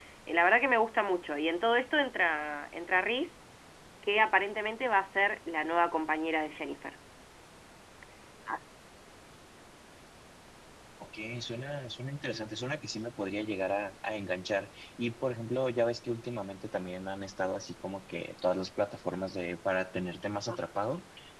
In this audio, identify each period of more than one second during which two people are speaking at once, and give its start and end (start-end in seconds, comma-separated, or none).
none